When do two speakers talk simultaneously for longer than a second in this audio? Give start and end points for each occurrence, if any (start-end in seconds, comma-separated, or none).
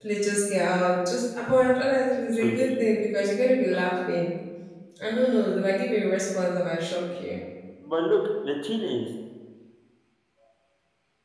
none